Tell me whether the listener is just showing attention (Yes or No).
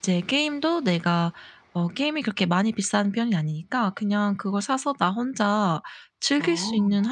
Yes